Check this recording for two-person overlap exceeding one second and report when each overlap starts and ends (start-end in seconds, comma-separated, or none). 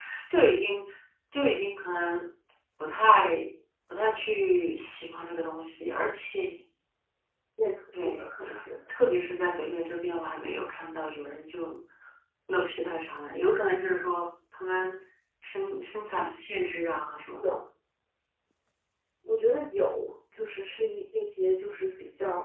none